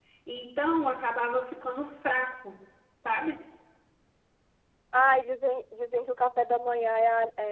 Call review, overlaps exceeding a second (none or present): none